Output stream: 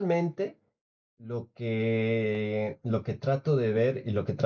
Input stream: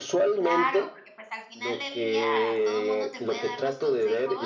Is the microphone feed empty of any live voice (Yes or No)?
No